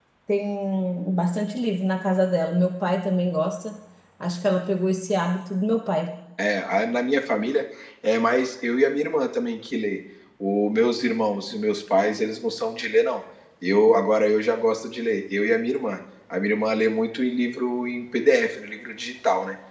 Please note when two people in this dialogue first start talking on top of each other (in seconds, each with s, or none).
none